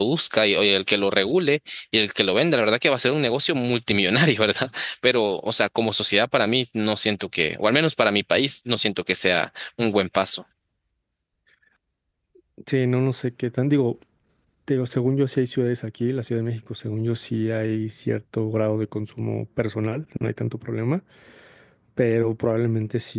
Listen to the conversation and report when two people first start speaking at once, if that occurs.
none

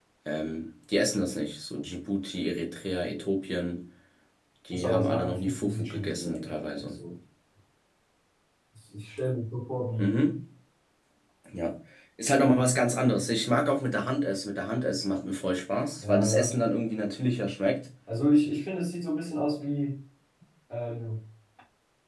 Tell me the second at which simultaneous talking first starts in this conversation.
4.7 s

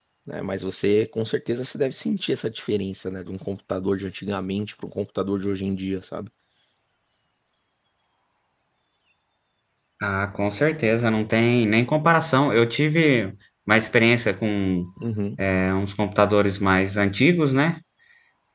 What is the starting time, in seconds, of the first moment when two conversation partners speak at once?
none

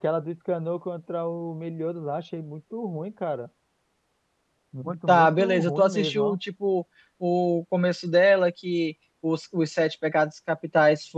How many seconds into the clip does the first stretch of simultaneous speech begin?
5.1 s

